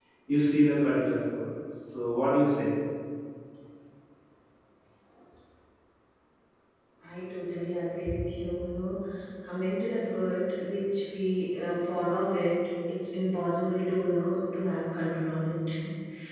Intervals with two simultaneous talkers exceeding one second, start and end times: none

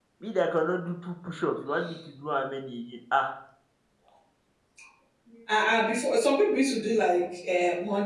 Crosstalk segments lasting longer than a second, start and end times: none

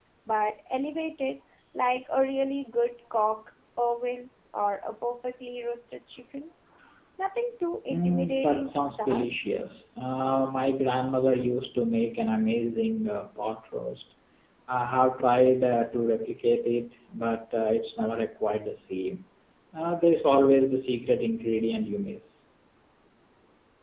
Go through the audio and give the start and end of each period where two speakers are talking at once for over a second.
7.9-9.3

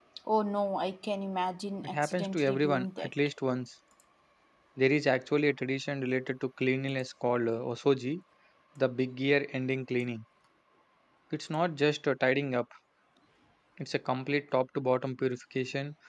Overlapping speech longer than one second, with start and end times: 1.8-3.1

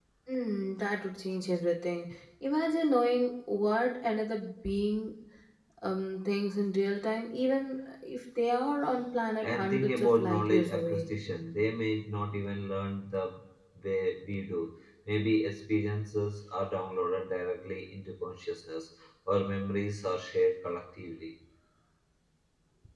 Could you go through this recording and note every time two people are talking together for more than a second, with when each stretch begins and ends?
9.4-11.1

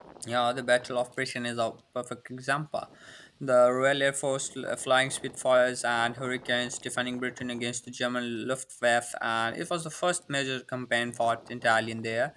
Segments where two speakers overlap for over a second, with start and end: none

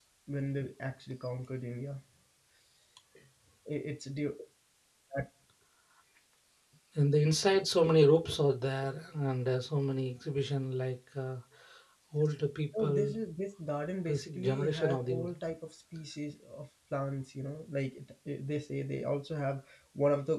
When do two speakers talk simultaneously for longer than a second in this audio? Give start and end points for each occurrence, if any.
14.1-15.3

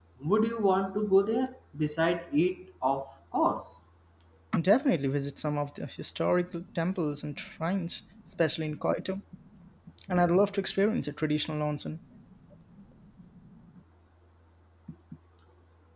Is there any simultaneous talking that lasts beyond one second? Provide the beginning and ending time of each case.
none

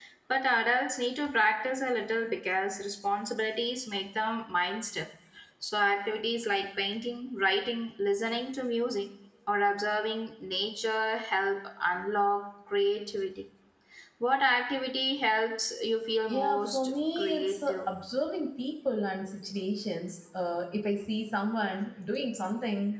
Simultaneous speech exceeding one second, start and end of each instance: 16.3-17.9

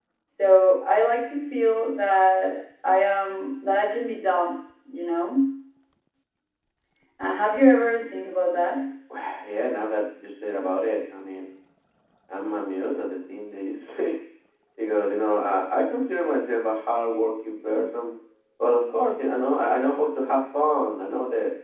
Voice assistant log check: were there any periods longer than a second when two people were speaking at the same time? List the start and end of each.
none

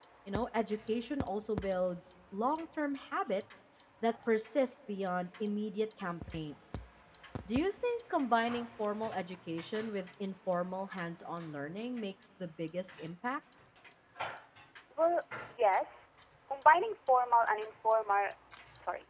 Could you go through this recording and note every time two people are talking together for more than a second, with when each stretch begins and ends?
none

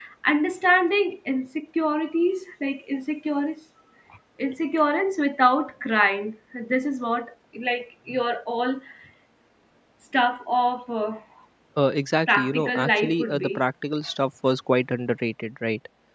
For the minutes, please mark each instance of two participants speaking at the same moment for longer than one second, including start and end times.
12.3-13.6

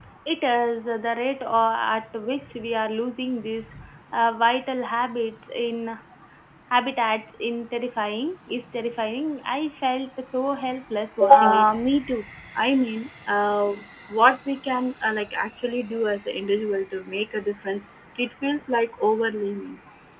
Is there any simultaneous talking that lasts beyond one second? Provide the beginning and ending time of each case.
none

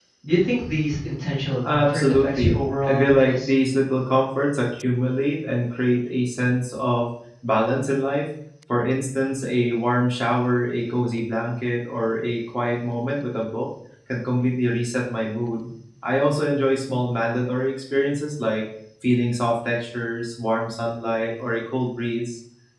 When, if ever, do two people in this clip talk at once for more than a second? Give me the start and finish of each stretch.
1.7-3.5

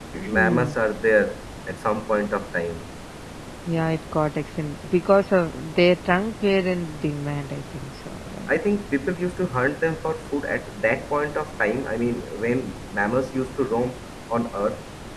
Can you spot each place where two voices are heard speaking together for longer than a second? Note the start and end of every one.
none

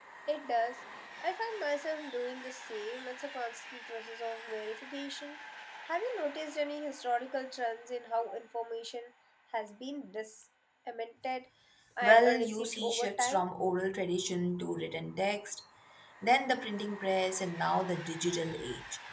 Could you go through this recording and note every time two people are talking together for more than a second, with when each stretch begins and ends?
12.0-13.4

